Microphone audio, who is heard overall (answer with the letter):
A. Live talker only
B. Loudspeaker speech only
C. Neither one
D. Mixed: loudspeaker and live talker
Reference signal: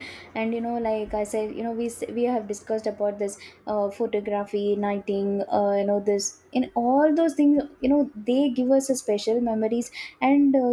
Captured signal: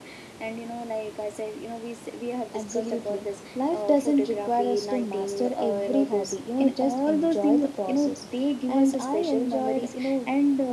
D